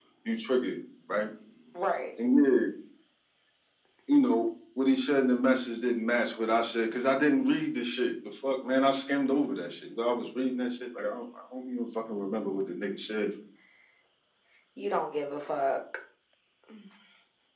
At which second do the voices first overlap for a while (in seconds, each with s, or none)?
none